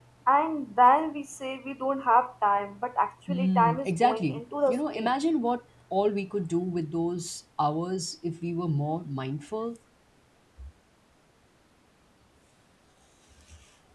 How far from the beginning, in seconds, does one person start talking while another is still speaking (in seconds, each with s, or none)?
3.3 s